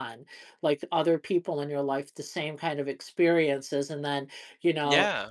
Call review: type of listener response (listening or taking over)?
listening